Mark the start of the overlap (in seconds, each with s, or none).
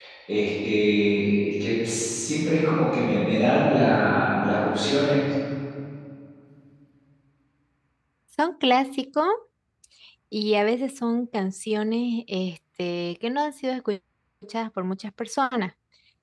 none